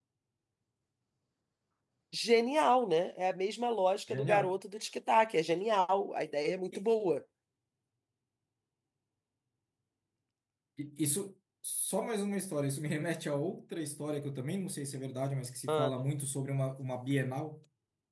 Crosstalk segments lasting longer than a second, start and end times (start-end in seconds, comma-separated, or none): none